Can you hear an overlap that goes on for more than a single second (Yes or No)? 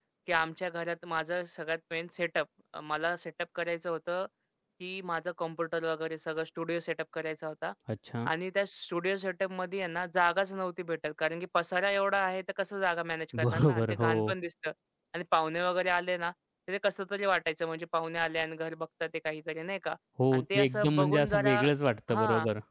Yes